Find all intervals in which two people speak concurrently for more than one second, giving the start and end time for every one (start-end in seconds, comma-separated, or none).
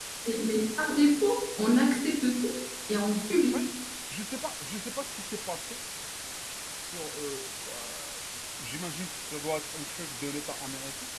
none